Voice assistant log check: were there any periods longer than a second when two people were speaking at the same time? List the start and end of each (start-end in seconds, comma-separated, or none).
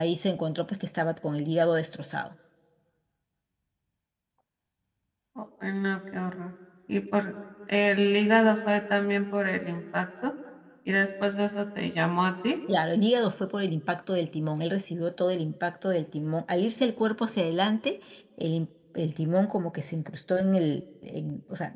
none